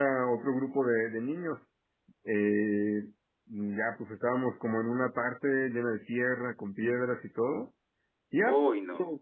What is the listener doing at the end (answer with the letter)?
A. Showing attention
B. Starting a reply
A